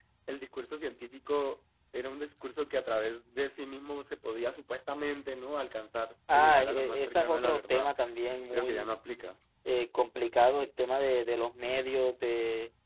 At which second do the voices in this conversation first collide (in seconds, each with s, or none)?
6.3 s